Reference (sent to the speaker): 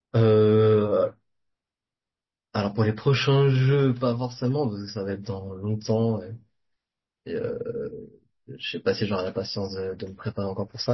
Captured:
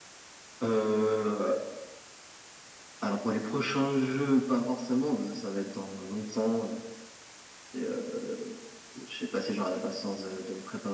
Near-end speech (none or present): none